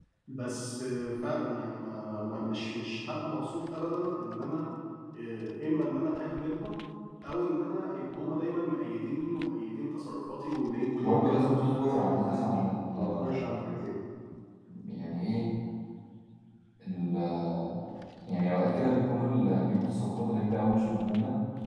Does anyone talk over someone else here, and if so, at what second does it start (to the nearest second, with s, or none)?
11 s